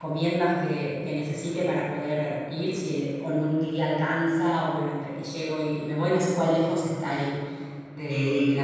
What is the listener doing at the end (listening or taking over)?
taking over